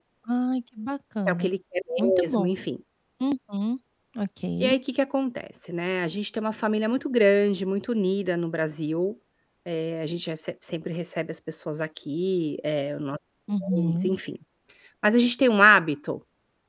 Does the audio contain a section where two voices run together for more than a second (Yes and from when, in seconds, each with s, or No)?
No